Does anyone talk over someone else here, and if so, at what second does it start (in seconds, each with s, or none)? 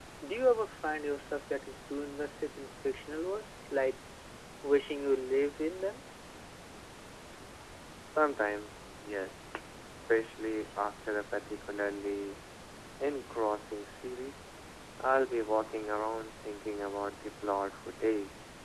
none